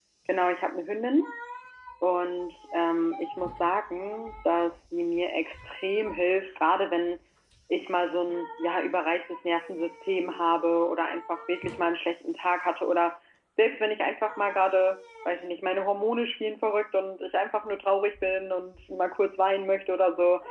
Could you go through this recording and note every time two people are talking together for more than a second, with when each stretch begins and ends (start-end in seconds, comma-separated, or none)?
none